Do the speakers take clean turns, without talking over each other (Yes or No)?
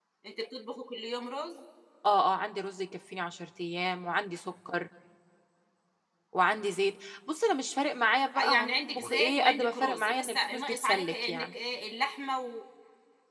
No